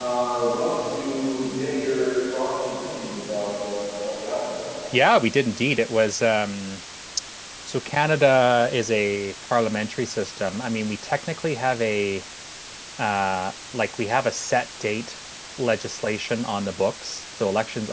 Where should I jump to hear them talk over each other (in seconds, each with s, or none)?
none